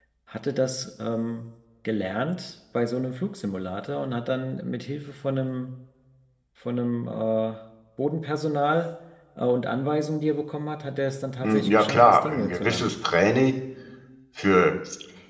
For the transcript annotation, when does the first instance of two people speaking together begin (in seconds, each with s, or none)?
11.4 s